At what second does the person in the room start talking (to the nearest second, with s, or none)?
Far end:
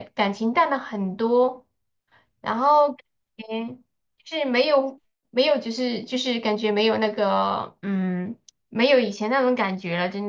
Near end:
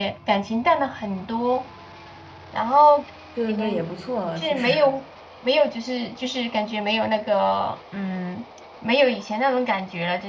3 s